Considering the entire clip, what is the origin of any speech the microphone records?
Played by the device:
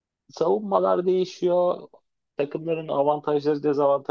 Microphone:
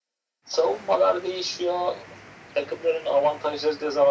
echo only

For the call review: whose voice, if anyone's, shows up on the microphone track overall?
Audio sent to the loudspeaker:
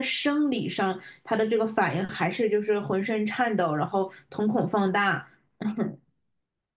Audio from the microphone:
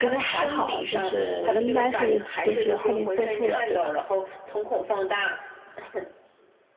both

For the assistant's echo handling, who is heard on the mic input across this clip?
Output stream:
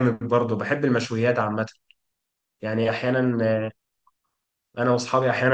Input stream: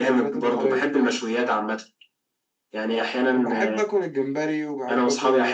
both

